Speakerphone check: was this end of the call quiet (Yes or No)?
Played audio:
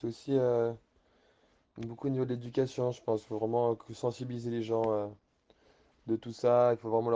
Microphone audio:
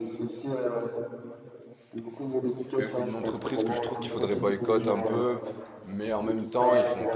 No